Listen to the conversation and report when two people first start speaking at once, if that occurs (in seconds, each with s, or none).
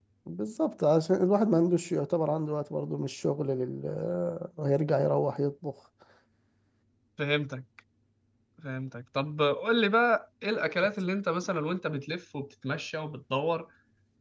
none